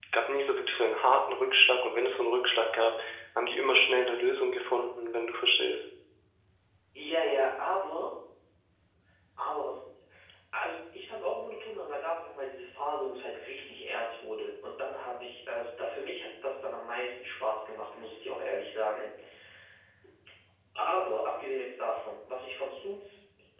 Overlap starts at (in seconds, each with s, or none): none